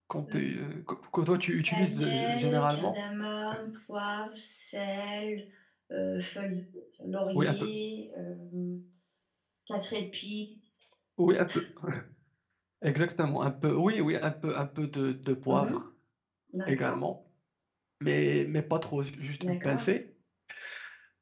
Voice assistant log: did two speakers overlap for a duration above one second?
Yes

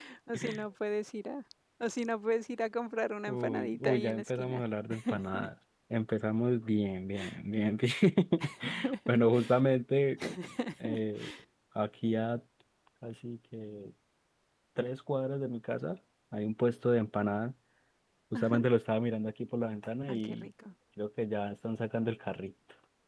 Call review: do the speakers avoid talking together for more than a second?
No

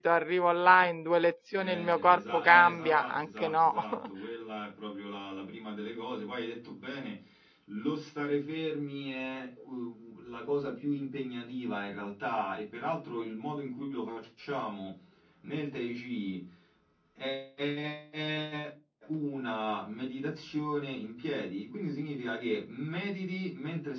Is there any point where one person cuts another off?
Yes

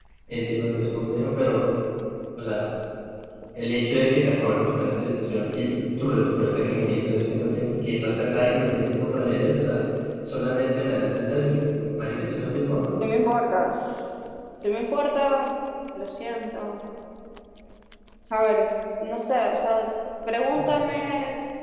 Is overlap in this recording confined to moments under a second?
Yes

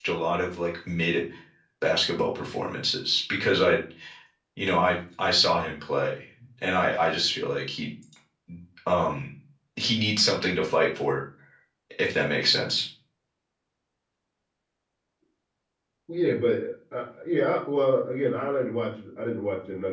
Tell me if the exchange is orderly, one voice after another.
Yes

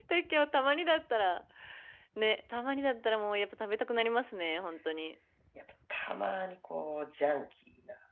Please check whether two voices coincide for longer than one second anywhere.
No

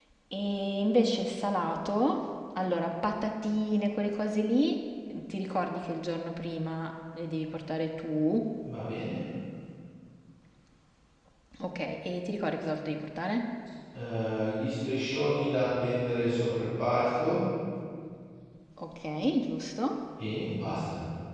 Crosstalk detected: No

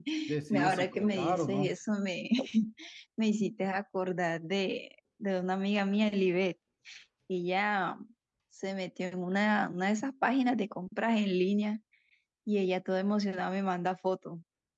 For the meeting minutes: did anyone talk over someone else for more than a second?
Yes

